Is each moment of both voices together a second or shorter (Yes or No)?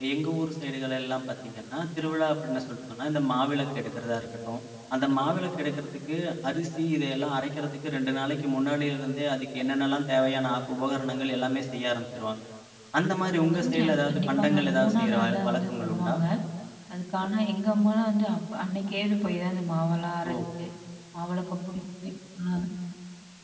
No